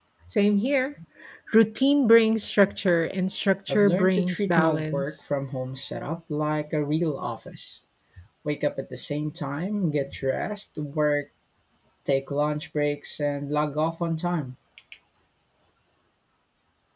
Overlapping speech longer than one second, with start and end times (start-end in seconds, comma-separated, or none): 3.7-5.2